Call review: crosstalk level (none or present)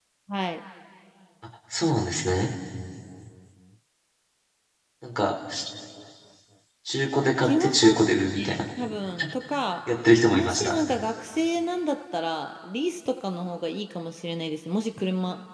present